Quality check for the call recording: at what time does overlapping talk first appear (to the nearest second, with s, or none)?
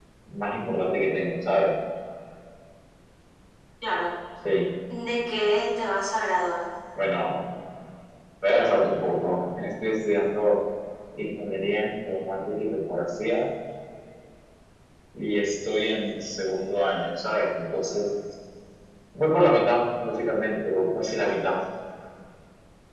none